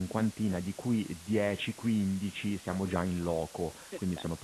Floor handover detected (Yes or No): No